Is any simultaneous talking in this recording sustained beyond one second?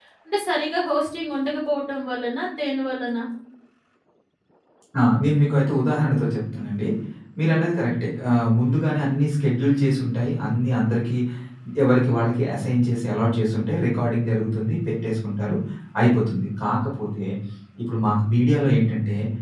No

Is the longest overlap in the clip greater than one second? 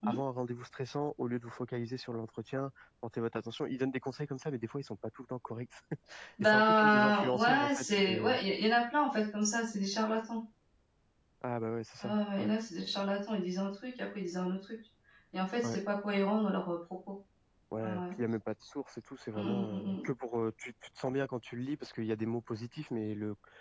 Yes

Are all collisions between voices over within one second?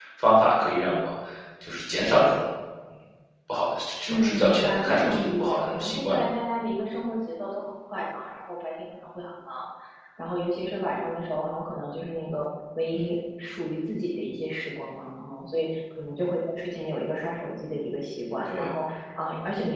No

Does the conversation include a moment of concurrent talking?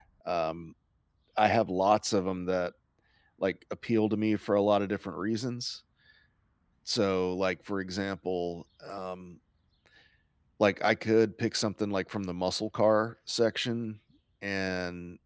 No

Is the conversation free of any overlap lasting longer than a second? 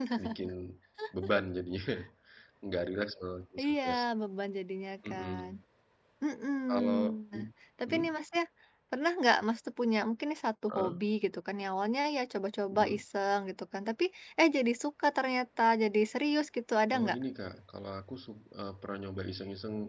Yes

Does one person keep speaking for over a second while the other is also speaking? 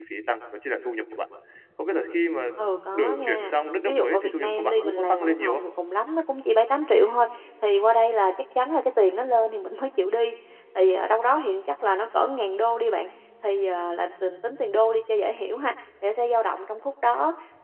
Yes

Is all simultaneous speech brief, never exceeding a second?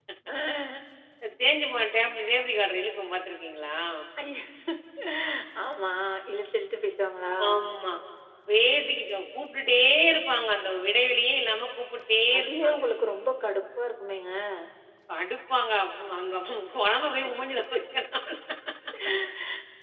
Yes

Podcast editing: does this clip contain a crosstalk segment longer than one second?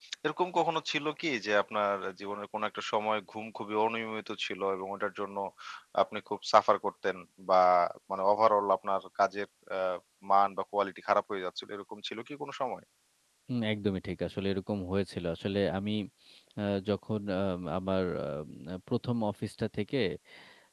No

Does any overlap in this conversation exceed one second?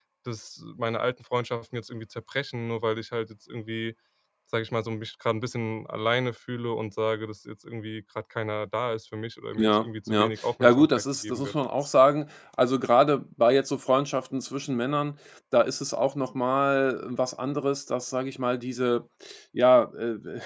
Yes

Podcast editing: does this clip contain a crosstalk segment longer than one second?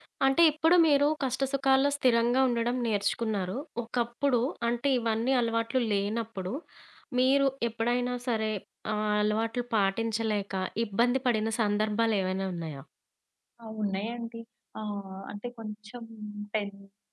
No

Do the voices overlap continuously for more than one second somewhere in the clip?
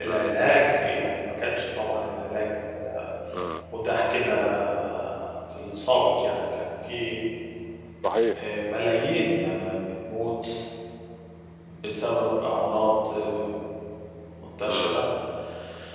No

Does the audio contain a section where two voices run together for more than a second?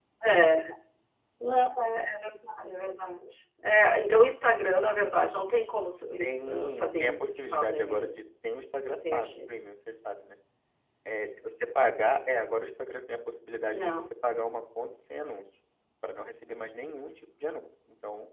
Yes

